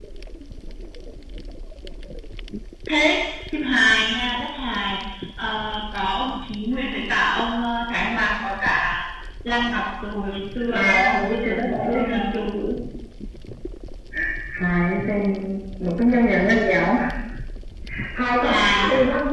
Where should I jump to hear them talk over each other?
10.7 s

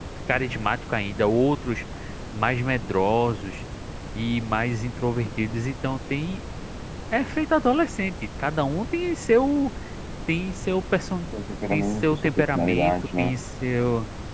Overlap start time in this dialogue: 11.7 s

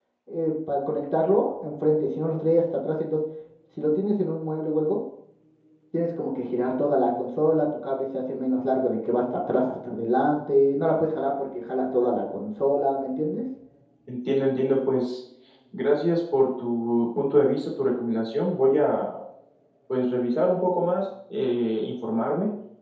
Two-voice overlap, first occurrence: none

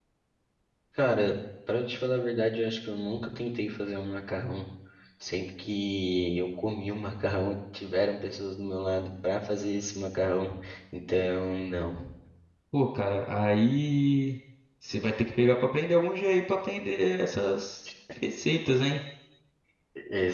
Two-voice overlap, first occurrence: none

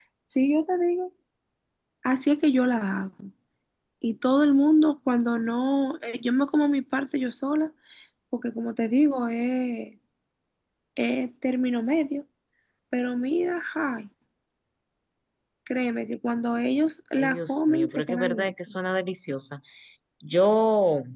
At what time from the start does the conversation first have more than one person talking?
17.2 s

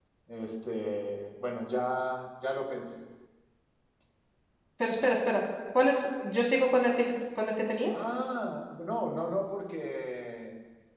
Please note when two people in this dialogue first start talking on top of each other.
none

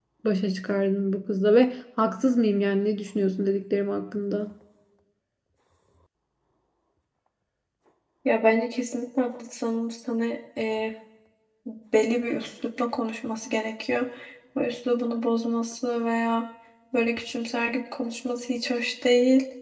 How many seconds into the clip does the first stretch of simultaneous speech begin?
none

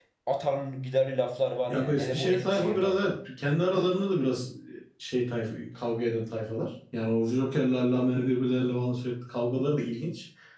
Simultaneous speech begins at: 1.7 s

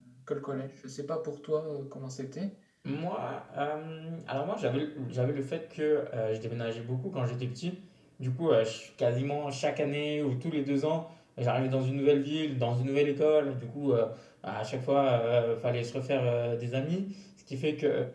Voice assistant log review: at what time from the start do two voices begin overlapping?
none

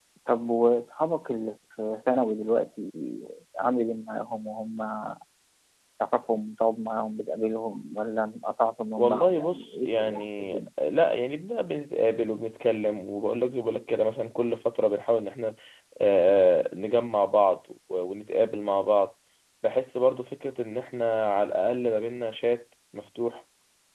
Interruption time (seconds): 9.0 s

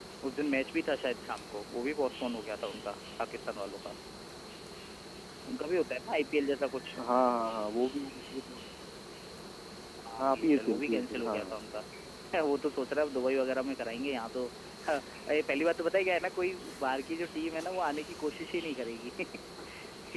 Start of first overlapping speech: 10.2 s

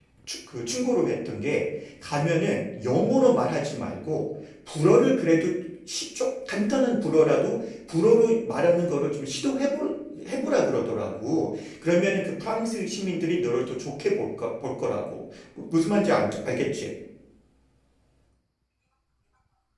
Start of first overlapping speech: none

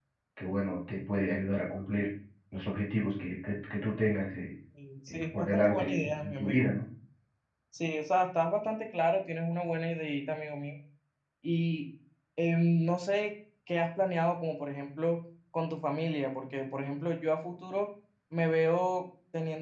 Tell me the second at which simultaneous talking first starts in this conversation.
5.1 s

